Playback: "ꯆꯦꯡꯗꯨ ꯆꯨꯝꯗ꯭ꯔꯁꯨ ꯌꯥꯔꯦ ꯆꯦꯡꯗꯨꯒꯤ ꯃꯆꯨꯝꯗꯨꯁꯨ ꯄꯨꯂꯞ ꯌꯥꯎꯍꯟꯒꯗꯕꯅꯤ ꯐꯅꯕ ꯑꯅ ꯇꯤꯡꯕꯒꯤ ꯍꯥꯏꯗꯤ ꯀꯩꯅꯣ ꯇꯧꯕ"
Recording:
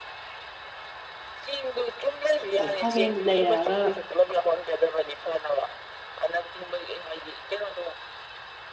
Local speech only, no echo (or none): ꯑꯗꯣ ꯈꯥꯃꯦꯟꯗꯨ ꯂꯩꯔꯛꯑꯒ